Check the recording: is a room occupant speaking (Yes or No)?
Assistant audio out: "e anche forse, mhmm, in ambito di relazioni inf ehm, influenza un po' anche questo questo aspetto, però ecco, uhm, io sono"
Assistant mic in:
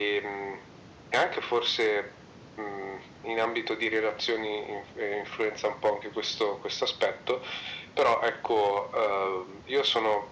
No